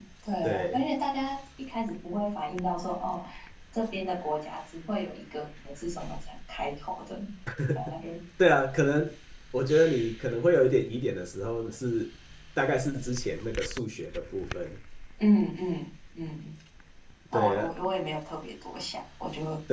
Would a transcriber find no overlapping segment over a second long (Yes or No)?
Yes